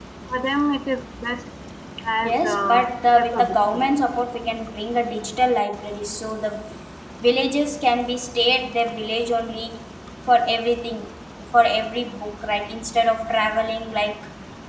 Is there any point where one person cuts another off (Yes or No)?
Yes